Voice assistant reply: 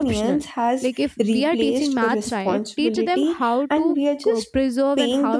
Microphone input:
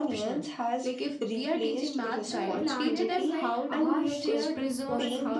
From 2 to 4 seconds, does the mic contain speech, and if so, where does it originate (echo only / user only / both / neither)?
both